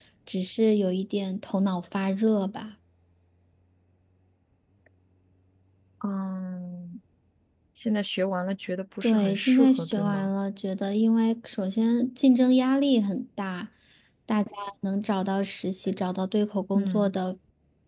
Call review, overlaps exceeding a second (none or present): present